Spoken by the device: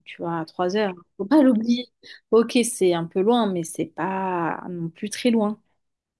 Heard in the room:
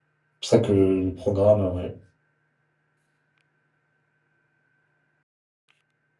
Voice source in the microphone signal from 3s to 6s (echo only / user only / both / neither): neither